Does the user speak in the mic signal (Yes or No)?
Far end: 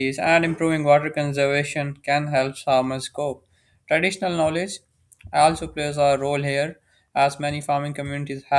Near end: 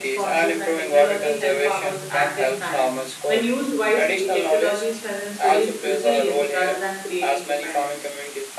Yes